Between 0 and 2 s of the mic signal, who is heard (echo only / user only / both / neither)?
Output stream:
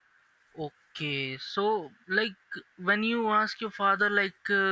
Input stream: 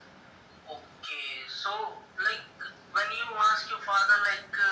echo only